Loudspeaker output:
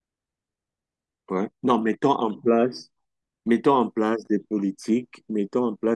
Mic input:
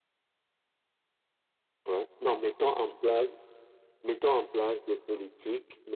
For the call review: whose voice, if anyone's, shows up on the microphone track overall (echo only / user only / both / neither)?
echo only